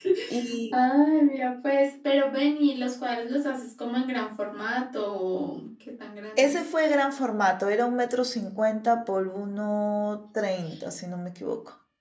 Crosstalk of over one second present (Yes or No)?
No